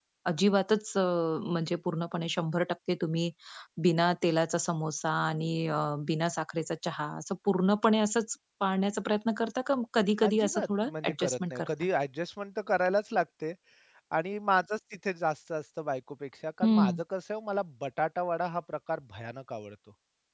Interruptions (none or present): present